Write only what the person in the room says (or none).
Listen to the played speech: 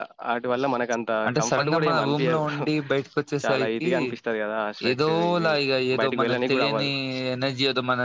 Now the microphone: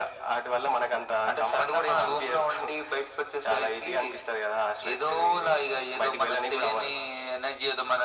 none